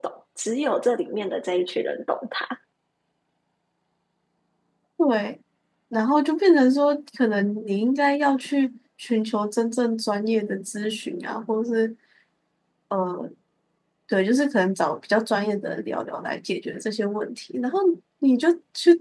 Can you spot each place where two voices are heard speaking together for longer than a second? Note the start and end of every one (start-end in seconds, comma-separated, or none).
none